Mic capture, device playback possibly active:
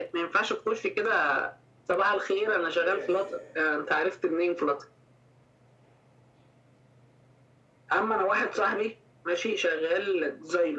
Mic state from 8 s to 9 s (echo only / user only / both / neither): echo only